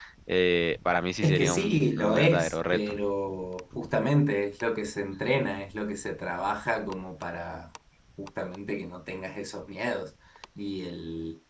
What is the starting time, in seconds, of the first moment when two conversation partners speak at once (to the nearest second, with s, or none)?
1 s